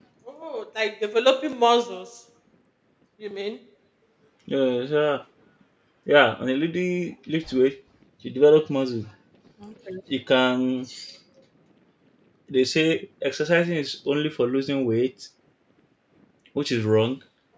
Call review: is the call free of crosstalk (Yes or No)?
Yes